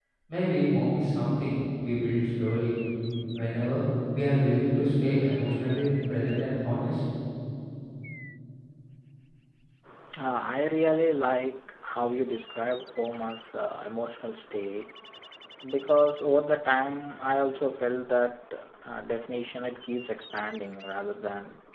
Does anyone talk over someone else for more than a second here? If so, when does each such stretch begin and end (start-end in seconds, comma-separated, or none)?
none